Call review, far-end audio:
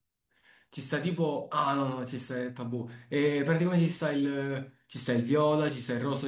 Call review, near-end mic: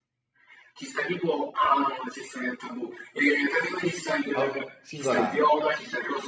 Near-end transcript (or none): Oh, singolare.